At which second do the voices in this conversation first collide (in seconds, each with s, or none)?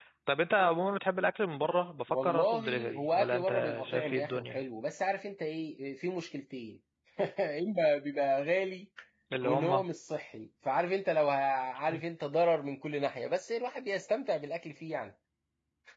2.1 s